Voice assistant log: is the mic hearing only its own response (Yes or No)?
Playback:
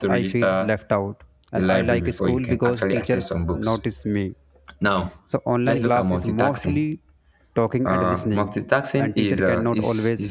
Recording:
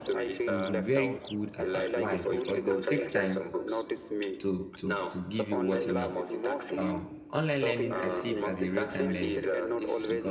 No